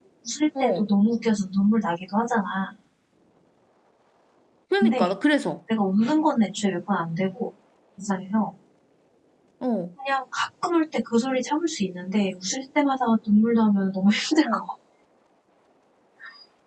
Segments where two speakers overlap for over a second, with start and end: none

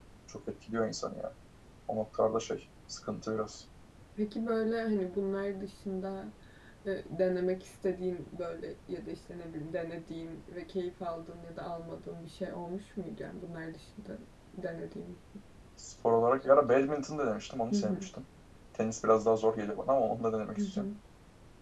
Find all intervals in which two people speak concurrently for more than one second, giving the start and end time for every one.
none

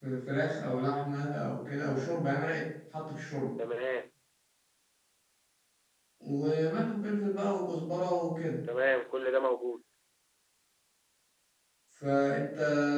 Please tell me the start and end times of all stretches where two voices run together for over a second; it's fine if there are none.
none

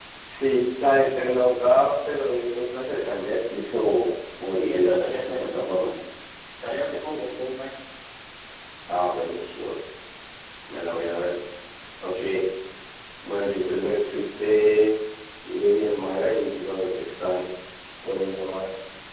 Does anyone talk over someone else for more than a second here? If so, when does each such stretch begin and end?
4.5-6.0

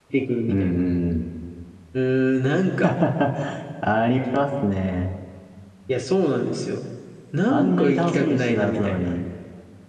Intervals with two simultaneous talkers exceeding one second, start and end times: 7.5-9.1

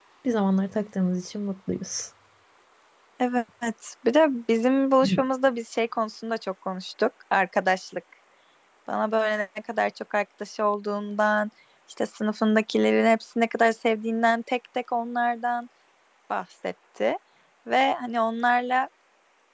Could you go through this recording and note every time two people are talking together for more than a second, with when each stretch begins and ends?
none

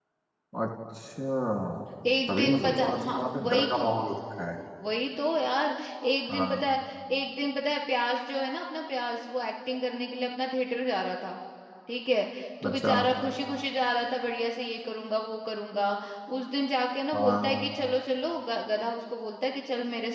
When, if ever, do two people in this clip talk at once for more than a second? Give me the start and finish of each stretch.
2.3-3.9

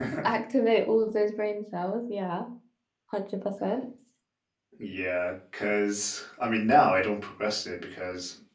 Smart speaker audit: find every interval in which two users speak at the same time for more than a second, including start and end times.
none

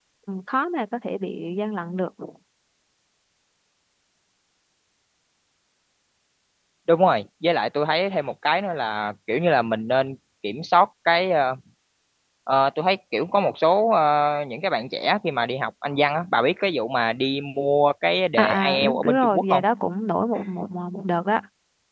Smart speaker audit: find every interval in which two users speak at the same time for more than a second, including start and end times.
18.3-19.6

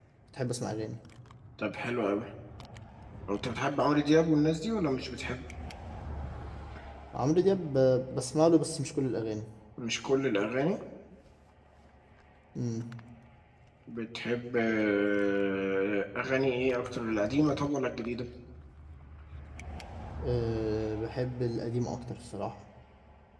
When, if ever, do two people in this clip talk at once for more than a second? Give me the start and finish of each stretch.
none

